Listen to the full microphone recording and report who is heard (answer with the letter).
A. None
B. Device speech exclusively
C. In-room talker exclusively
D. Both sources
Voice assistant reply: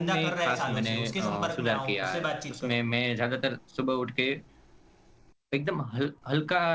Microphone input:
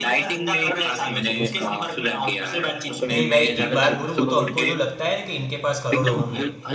D